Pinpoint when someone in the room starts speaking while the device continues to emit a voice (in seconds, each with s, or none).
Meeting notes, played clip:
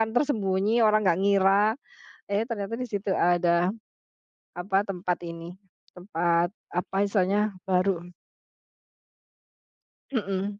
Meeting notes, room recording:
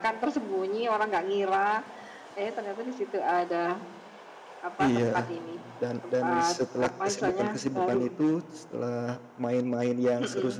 4.8 s